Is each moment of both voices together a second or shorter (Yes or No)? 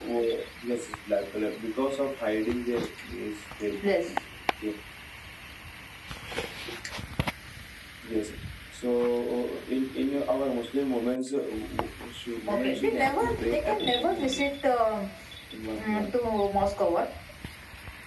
No